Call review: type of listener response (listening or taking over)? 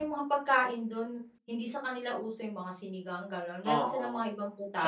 taking over